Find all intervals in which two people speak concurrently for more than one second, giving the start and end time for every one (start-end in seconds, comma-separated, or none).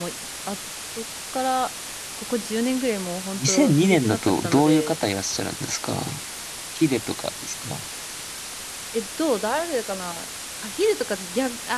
3.4-5.0